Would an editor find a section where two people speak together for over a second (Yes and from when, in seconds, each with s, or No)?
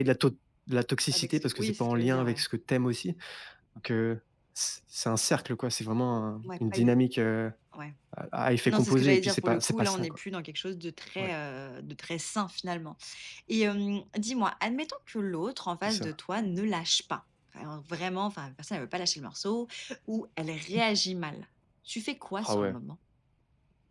Yes, from 1.1 s